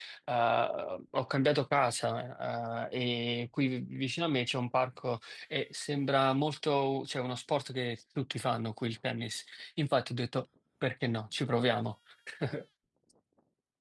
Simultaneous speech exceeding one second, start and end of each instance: none

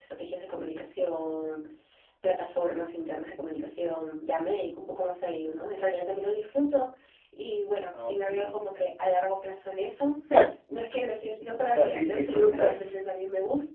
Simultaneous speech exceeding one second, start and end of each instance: 11.7-13.0

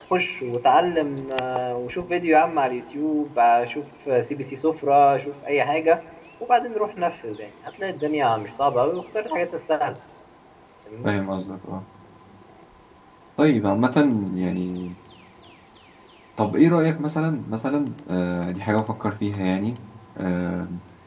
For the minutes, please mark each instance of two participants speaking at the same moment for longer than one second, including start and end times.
none

